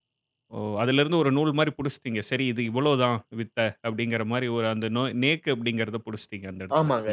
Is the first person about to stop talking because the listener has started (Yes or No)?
Yes